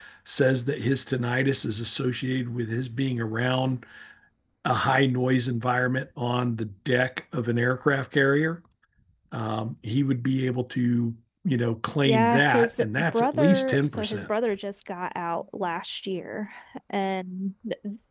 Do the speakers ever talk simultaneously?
Yes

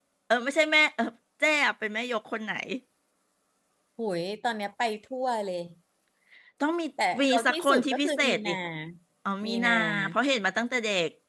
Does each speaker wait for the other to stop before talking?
No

